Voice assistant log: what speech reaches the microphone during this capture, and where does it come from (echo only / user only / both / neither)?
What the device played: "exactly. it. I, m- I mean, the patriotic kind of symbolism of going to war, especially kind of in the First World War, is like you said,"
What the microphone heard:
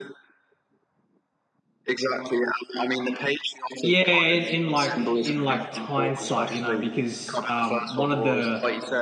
both